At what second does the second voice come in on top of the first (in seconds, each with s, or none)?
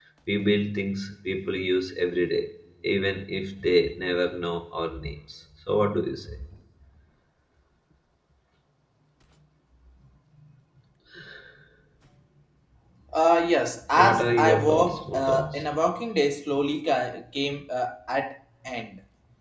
14.0 s